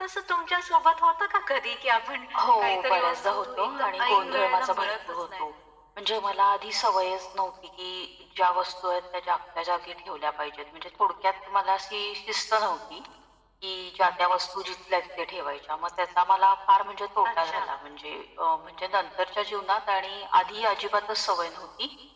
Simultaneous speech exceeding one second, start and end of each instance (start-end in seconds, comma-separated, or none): 2.4-5.5